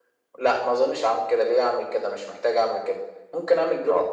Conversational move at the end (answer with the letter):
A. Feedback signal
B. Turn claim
A